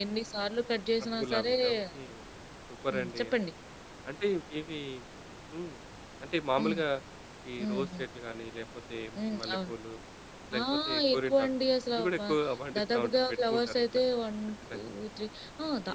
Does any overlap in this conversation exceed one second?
Yes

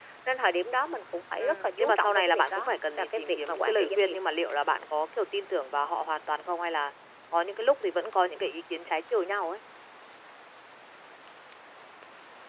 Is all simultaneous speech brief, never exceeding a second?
No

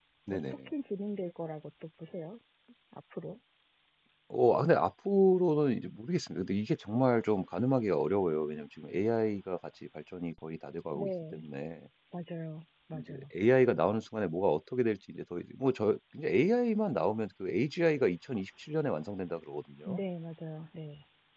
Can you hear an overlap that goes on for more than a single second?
No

